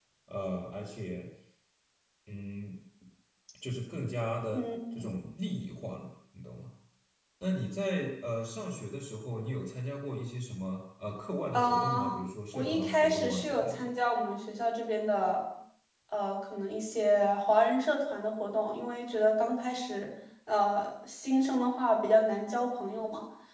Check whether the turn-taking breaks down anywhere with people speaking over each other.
Yes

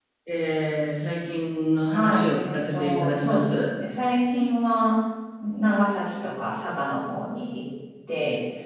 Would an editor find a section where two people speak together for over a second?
Yes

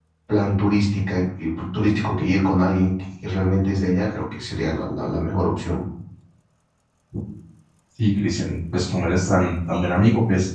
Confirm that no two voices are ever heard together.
Yes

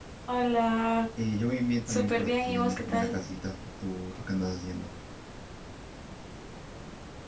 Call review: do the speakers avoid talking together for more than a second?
No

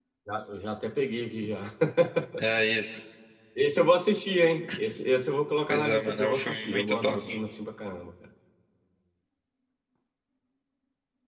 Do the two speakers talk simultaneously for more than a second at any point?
Yes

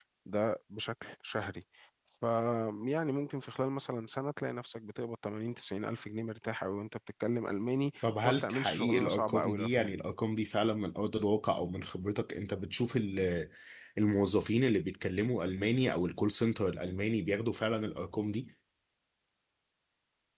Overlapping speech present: Yes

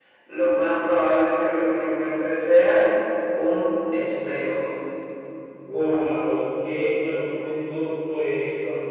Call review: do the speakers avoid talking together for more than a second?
Yes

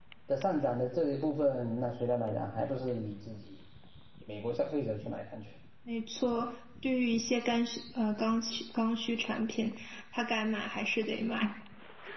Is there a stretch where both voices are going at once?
No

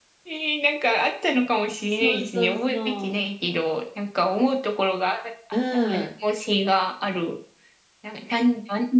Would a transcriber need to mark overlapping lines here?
Yes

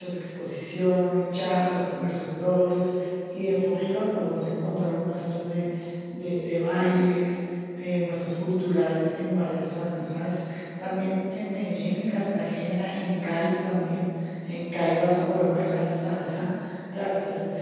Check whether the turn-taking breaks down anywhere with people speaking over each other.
No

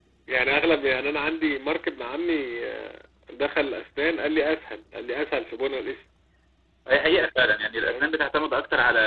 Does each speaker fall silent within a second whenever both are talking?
Yes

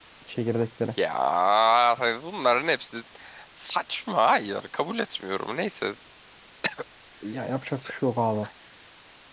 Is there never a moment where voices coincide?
Yes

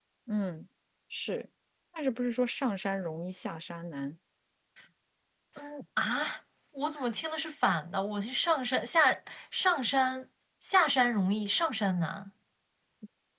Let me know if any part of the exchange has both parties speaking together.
No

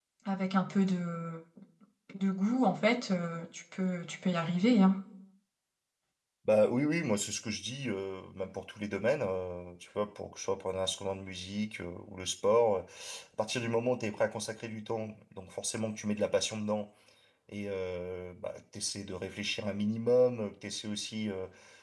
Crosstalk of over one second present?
No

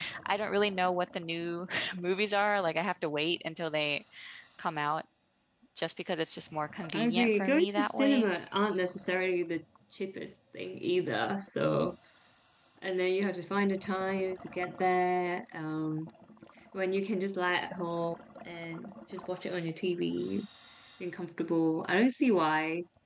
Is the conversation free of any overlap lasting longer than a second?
No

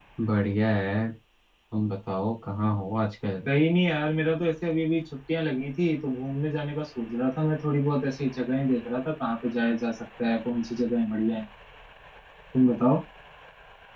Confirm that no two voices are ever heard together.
Yes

